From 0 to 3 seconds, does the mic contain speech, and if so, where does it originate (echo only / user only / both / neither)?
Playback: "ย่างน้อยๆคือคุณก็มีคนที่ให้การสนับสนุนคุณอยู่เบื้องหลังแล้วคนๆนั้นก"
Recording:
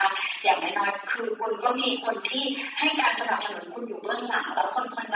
echo only